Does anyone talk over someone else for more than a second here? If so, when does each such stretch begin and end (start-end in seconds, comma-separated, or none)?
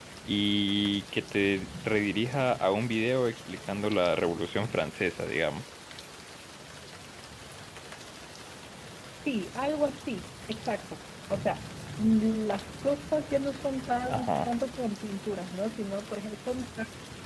none